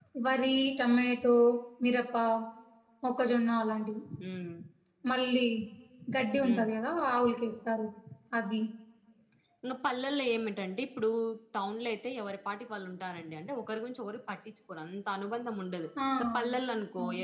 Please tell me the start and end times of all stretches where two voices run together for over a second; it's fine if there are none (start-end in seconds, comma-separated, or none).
none